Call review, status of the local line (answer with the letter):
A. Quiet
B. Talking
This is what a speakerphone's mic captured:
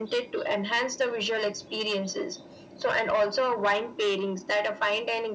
A